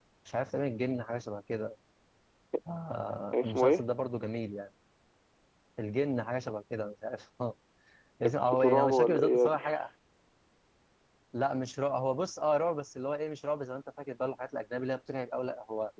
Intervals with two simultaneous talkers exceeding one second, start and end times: 8.2-9.6

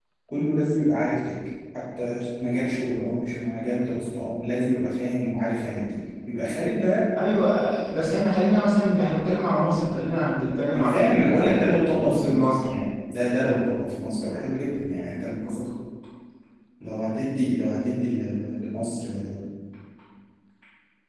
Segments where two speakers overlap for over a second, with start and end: 10.7-12.7

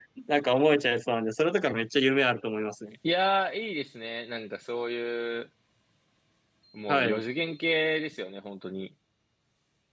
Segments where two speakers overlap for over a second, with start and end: none

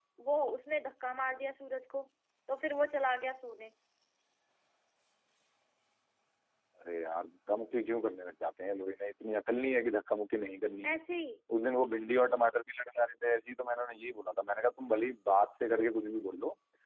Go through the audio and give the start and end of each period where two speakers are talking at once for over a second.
none

